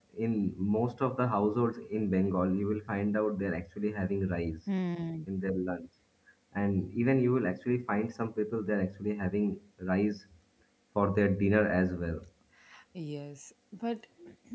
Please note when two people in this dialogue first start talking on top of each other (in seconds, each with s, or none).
none